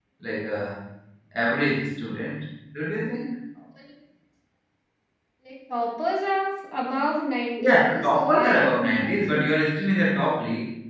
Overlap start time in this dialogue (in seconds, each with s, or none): 7.6 s